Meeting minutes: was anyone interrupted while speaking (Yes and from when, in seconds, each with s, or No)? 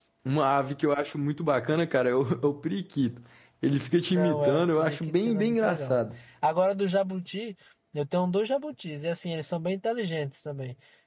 Yes, from 4.1 s